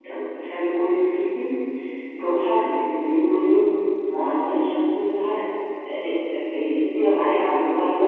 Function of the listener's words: listening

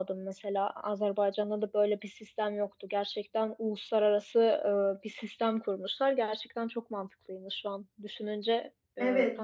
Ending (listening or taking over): taking over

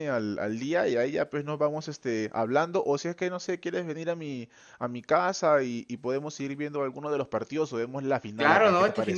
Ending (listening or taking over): taking over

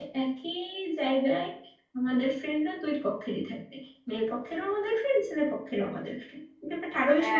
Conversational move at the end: taking over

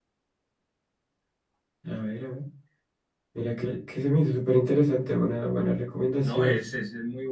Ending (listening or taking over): taking over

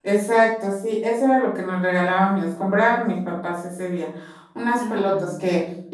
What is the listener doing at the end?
listening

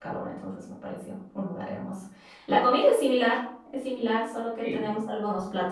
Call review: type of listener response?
listening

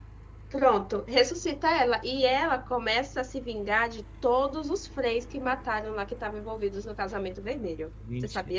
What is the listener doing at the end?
taking over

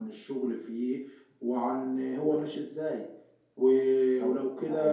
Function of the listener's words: listening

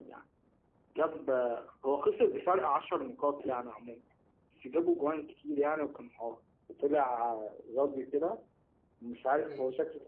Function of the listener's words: listening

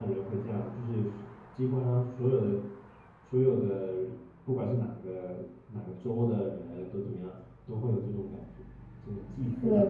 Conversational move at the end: taking over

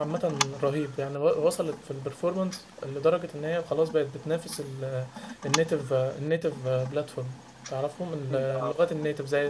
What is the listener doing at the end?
listening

